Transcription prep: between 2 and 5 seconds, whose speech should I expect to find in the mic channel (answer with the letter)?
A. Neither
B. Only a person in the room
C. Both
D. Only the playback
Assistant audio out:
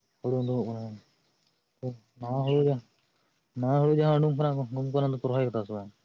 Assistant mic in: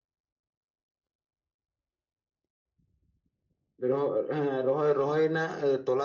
B